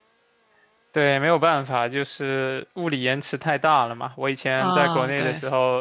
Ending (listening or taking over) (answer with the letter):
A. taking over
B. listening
B